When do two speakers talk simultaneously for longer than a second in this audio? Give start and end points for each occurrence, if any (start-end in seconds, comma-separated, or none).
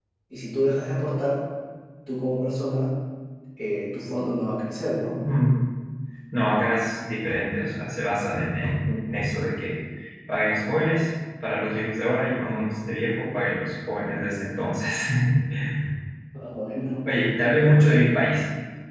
none